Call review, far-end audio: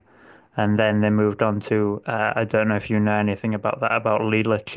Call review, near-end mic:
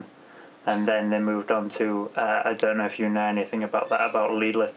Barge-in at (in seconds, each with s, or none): none